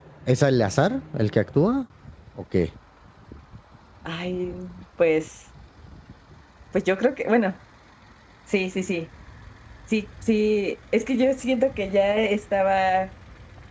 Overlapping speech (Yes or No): No